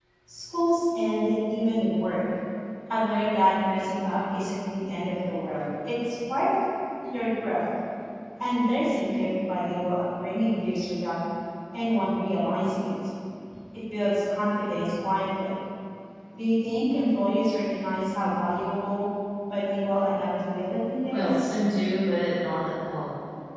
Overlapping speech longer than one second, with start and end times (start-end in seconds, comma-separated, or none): none